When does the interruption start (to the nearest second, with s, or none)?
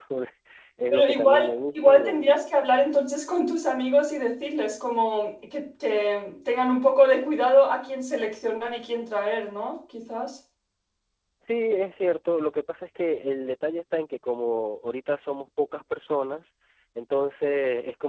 1 s